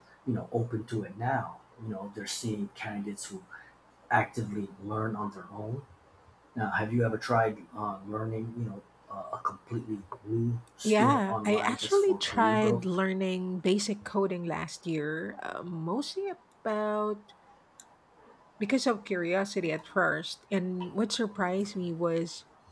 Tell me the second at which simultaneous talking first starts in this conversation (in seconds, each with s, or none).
10.8 s